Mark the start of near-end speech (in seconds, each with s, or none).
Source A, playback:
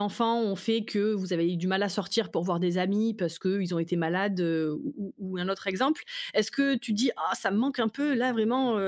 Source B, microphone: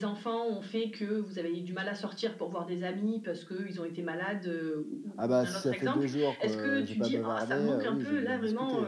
5.2 s